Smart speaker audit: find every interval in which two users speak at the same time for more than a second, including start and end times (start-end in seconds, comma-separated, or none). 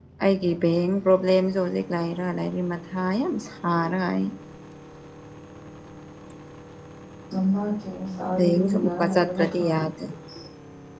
8.4-9.7